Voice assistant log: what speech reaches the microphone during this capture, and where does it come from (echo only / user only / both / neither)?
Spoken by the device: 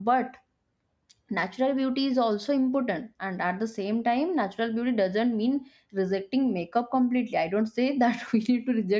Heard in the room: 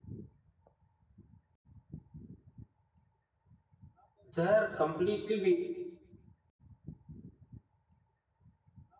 user only